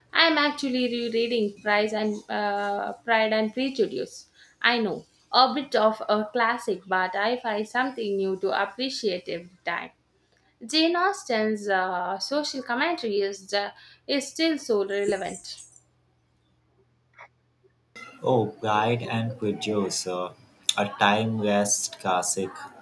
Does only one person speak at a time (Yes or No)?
Yes